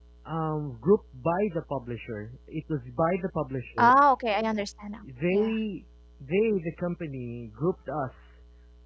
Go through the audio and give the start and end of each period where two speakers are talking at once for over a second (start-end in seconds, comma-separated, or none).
none